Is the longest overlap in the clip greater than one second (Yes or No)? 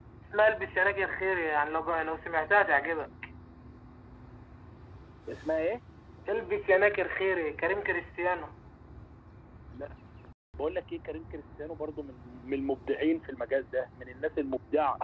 No